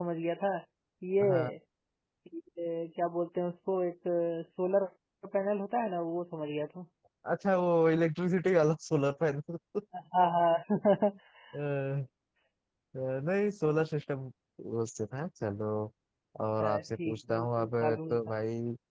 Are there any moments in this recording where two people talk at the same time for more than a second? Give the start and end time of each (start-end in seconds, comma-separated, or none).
16.6-18.2